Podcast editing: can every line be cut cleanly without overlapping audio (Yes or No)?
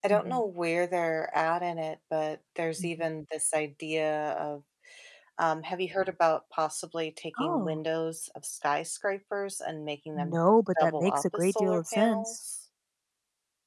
No